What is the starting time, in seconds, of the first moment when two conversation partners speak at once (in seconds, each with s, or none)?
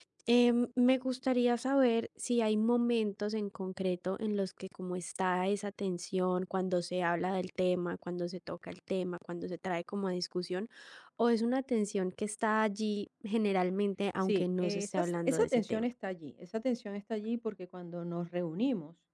14.2 s